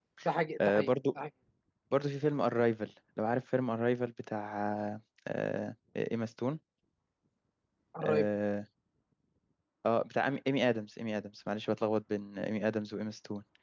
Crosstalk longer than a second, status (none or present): none